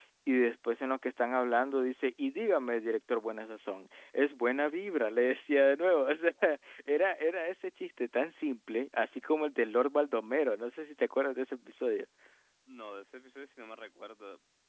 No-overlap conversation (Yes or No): Yes